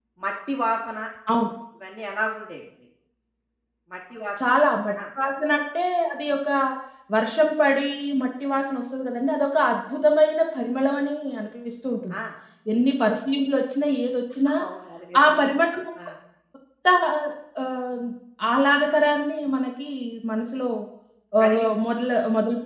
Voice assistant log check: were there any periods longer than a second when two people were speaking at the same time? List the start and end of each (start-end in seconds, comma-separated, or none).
none